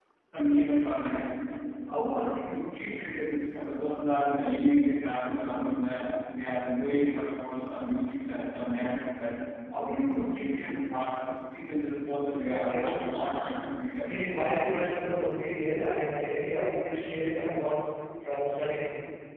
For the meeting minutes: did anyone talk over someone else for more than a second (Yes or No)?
No